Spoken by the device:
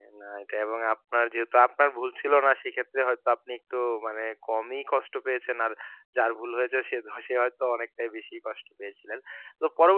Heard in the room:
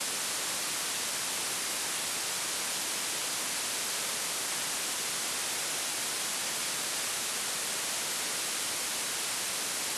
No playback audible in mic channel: Yes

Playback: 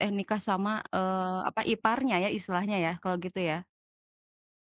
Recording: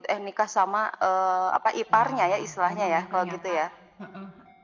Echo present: Yes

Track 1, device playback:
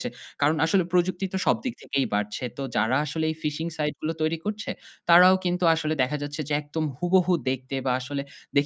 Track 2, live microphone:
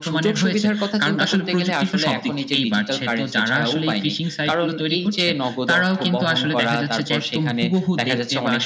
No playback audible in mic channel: No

